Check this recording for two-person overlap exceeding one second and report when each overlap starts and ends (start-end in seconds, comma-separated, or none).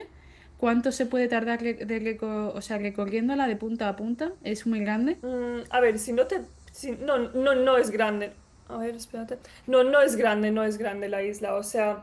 none